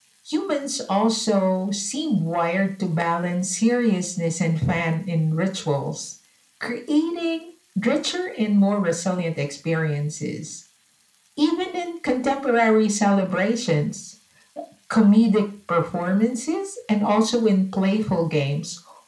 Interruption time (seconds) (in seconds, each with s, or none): none